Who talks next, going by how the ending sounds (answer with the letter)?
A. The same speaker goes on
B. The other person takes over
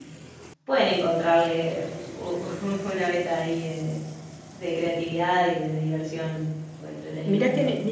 B